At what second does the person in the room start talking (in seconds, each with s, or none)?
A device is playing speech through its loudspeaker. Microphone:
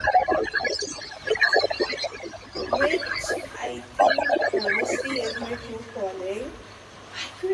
2.6 s